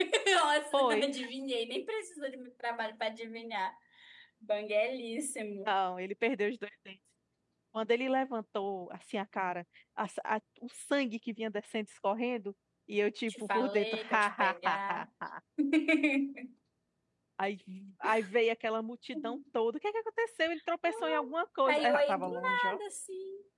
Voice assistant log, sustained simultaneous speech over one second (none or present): present